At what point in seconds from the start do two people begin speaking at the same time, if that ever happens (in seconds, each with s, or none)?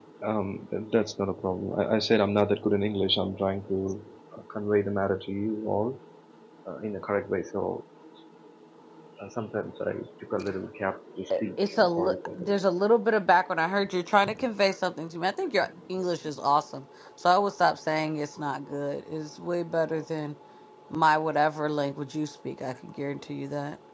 11.3 s